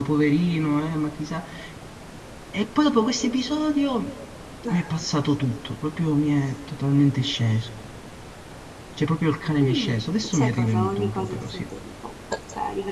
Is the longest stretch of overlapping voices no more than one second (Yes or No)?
No